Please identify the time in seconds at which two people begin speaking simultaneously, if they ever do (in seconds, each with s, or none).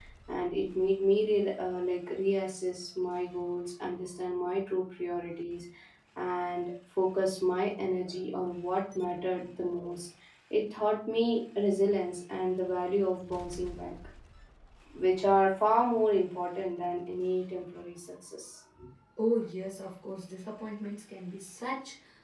none